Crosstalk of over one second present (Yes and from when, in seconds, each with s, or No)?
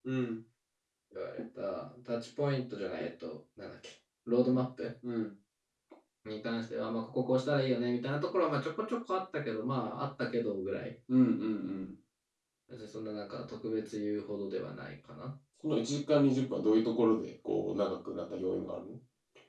No